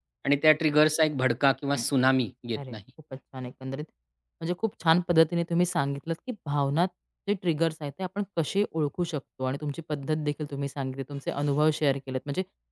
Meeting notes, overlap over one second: none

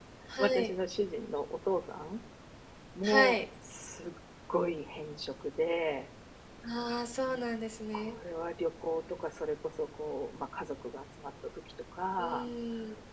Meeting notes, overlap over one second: none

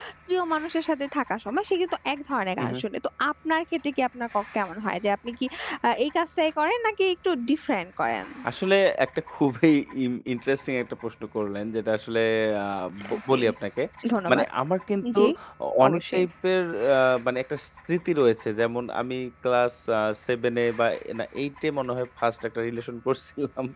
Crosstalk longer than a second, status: none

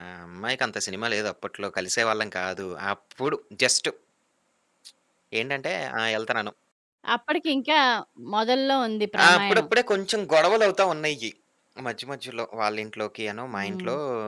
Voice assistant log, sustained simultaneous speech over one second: none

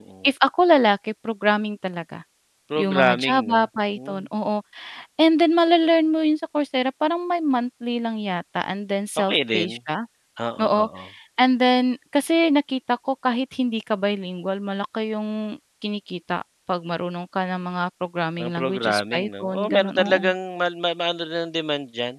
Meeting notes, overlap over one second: present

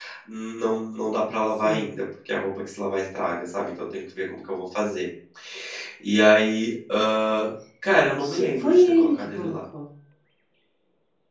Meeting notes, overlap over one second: present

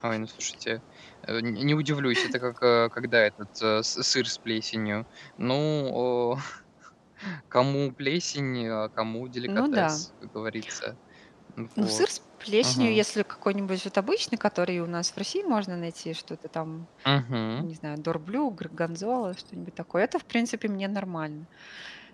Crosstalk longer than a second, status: none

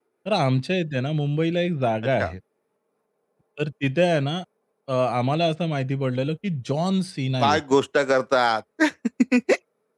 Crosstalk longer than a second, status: none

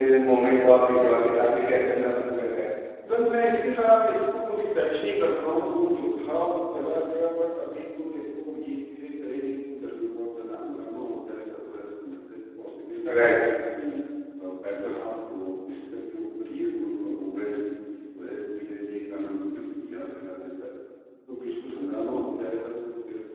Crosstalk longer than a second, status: none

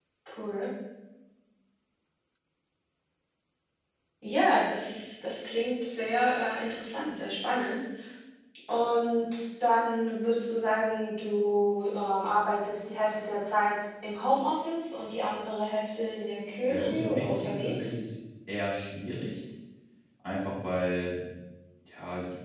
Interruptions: present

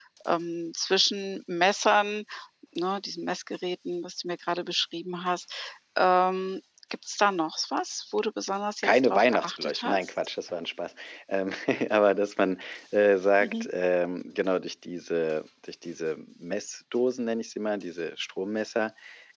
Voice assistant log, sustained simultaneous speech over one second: present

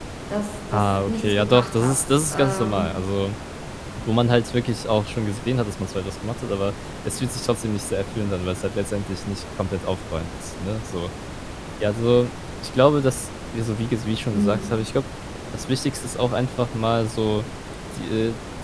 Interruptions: present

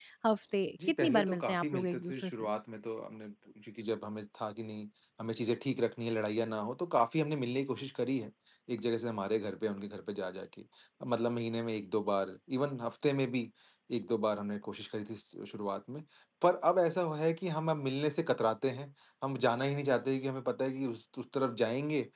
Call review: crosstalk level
present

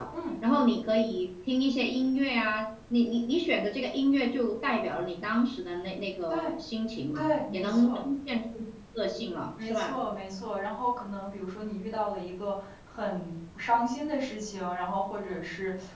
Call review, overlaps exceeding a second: none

